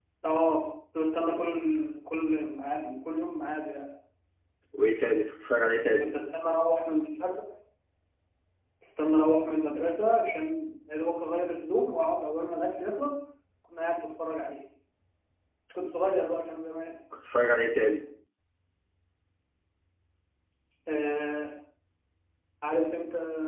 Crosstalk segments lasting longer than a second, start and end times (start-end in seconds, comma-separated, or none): none